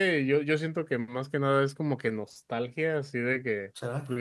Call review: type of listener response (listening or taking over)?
listening